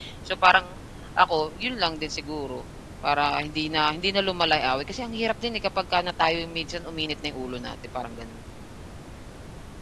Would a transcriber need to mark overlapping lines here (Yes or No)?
No